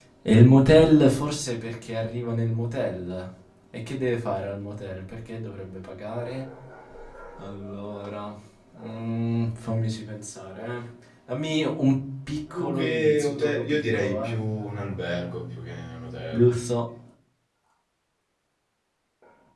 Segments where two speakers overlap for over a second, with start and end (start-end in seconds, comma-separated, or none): 12.5-14.3